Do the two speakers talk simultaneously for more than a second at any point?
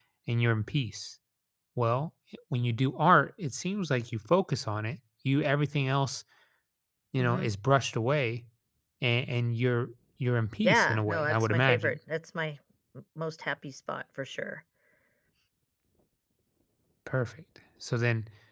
Yes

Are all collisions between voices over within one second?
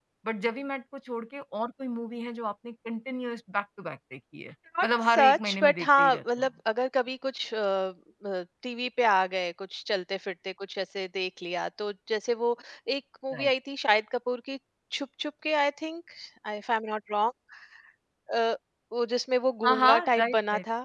No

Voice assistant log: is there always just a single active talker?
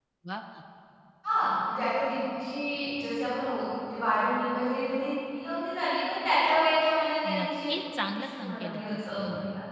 No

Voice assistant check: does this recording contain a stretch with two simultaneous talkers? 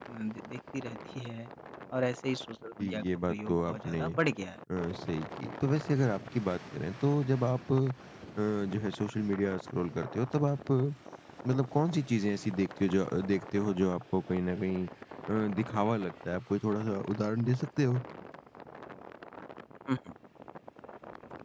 Yes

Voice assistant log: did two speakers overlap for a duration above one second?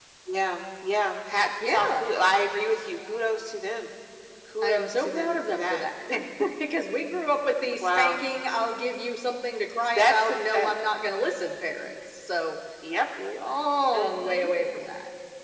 Yes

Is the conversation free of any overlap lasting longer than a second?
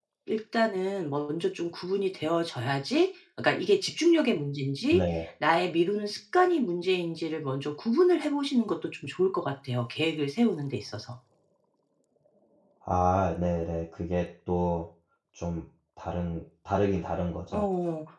Yes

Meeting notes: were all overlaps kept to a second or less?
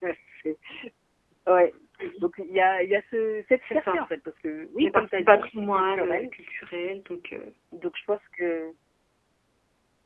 No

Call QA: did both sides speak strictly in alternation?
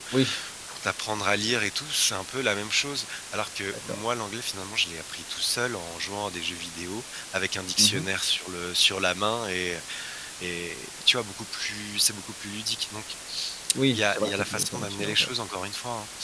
No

